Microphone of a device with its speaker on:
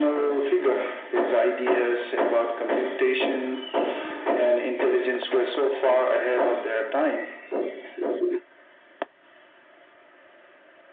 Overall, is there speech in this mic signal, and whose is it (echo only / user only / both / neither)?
echo only